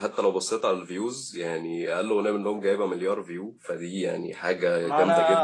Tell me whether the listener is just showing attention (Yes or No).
No